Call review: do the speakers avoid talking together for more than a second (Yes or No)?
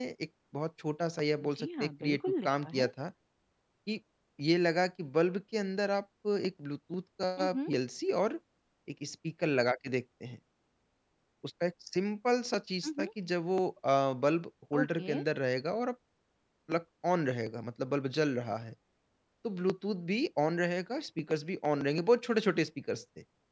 No